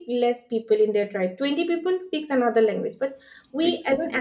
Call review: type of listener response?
listening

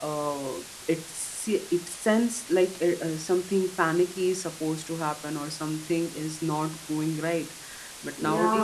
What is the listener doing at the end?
listening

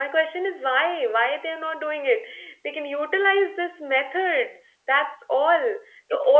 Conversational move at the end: listening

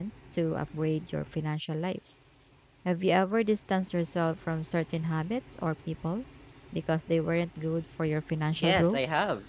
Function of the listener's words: taking over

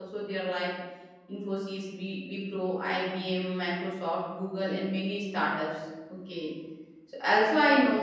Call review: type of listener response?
listening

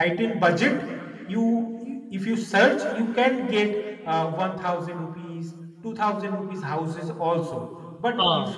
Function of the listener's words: listening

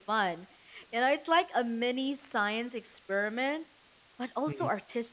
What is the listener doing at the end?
listening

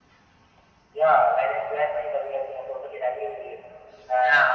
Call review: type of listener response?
listening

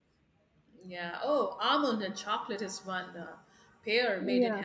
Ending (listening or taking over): listening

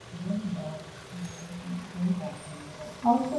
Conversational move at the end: taking over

